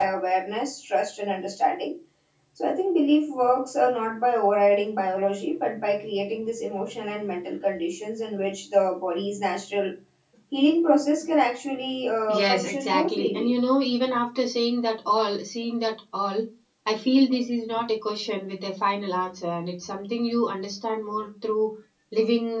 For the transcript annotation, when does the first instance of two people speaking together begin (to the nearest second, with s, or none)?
12 s